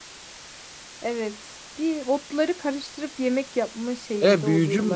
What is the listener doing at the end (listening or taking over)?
taking over